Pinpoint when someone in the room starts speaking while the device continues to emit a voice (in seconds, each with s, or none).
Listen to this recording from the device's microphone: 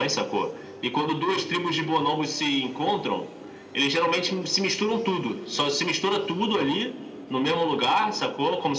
none